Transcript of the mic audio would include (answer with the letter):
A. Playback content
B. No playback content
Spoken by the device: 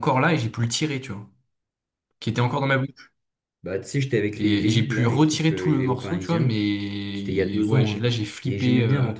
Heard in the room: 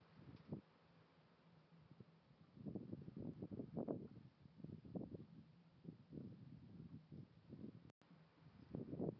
B